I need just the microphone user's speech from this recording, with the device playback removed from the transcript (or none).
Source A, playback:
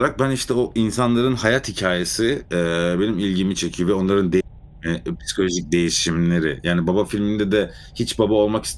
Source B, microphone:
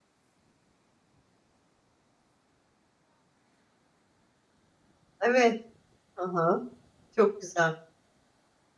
Evet, hı hı, çok güzel.